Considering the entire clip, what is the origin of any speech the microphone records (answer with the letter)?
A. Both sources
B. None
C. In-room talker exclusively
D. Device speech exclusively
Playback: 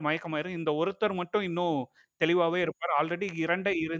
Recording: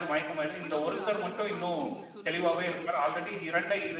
A